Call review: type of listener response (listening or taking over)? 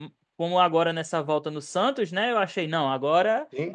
listening